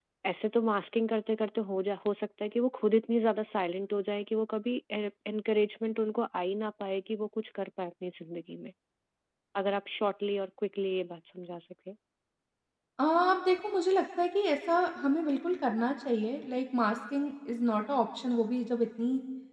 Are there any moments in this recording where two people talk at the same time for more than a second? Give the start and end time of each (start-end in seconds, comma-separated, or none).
none